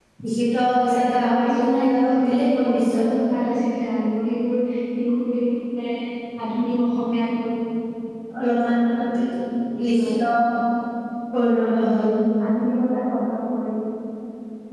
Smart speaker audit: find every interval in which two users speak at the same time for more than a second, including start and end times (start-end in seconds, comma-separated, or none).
1.4-3.0